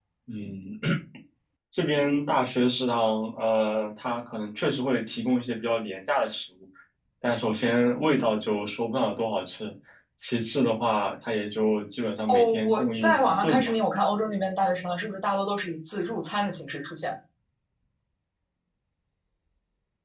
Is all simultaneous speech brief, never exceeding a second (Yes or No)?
No